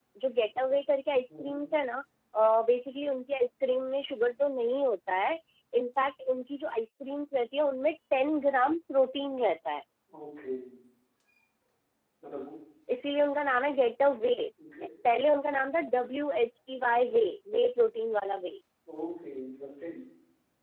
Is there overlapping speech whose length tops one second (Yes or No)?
No